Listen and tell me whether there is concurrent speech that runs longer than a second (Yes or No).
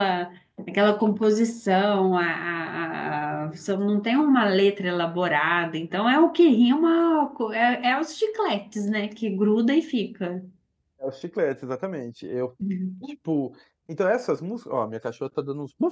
No